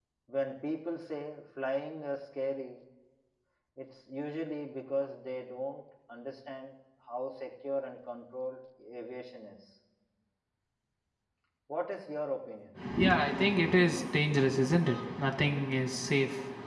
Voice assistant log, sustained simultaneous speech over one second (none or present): none